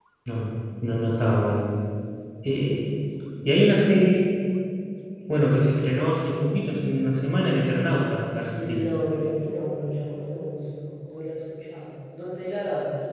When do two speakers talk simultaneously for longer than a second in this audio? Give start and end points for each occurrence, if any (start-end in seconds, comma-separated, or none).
none